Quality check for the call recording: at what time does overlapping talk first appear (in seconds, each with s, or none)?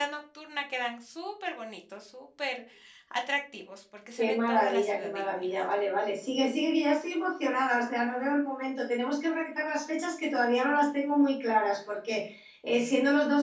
4.2 s